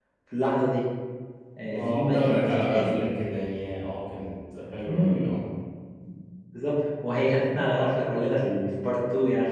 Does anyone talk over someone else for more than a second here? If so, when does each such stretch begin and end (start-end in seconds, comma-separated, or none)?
1.7-3.0